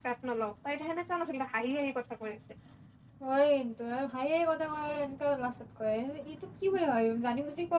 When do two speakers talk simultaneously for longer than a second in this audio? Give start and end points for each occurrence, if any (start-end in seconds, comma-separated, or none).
none